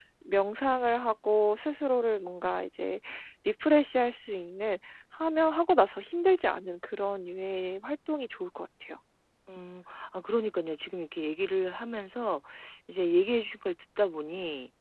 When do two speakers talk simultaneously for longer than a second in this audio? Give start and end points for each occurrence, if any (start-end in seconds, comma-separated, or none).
none